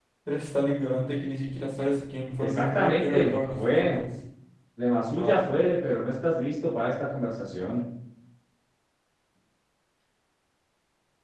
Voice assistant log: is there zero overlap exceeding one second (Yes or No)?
No